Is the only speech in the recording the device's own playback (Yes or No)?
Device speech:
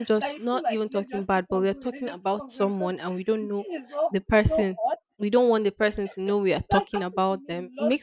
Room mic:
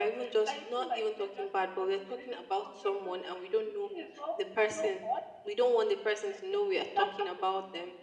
Yes